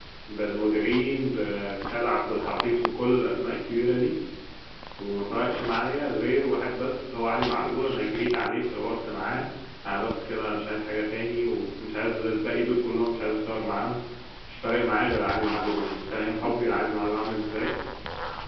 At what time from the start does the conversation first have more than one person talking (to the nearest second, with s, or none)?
none